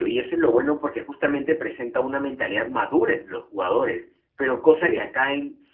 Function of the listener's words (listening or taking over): listening